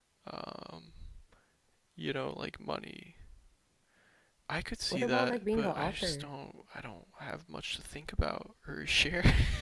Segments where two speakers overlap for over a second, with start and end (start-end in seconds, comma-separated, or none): 4.9-6.3